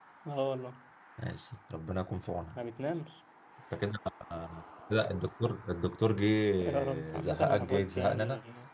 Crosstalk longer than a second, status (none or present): present